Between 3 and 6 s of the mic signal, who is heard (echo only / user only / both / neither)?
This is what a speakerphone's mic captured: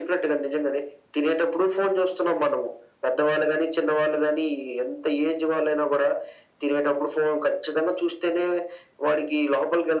echo only